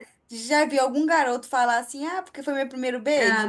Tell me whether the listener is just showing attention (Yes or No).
No